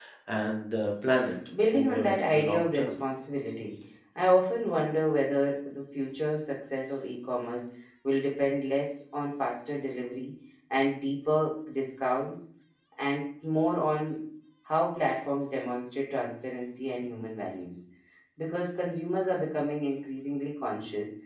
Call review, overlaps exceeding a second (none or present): present